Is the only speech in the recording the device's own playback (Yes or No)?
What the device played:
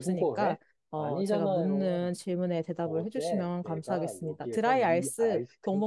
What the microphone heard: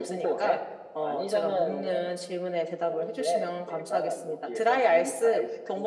Yes